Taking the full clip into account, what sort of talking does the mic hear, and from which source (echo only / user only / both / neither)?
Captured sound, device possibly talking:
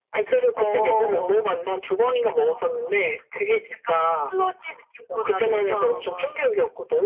echo only